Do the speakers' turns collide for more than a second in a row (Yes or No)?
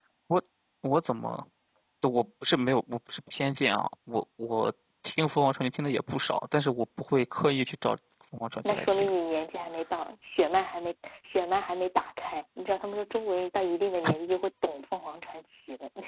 No